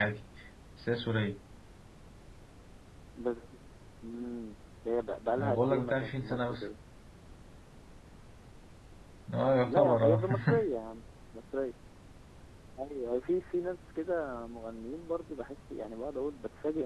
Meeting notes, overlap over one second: present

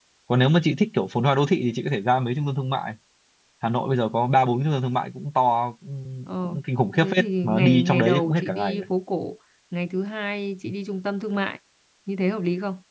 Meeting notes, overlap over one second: present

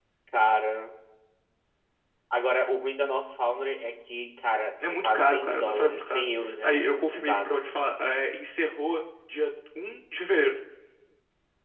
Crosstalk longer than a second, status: present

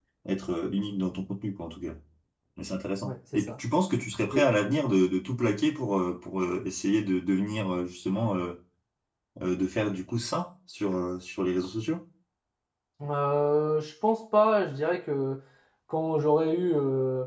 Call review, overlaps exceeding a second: none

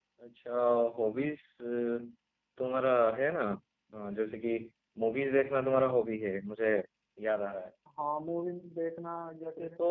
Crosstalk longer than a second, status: none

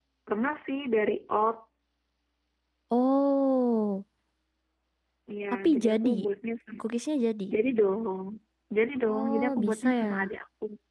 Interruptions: present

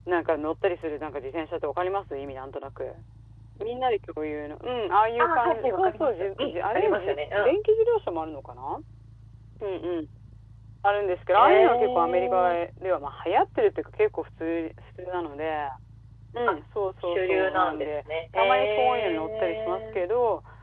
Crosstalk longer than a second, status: present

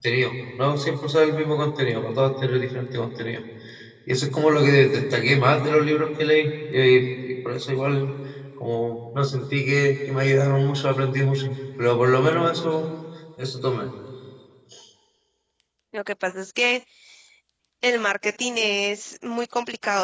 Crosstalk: none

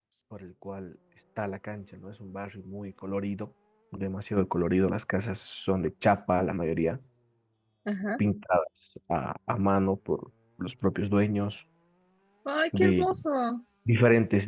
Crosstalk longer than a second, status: none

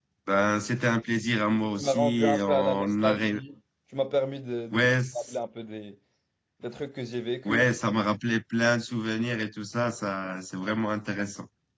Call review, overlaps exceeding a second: present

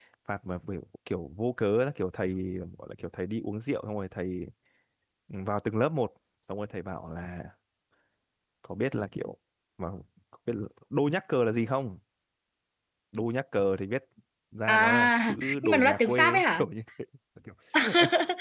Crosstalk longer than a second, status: present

